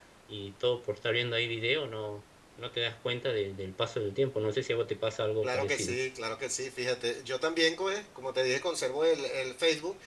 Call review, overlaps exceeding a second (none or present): none